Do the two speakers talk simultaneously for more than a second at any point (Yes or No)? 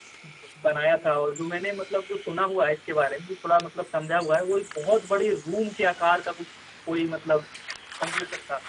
No